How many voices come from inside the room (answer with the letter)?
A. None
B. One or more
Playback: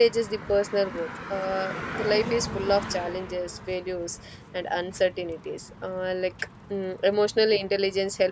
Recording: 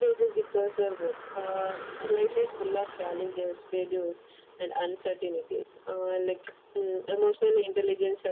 A